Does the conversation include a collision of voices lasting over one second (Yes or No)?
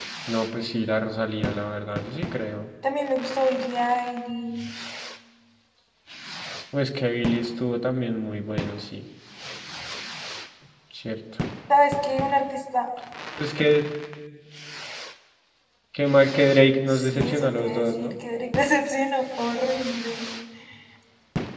Yes